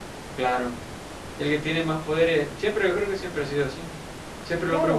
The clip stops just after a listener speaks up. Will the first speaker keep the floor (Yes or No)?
Yes